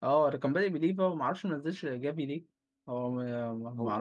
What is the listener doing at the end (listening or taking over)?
taking over